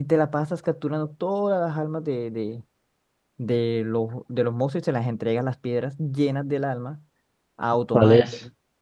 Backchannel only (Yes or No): No